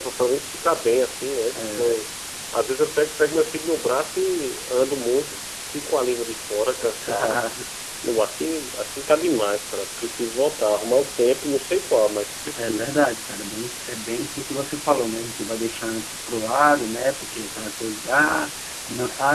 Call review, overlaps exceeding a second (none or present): none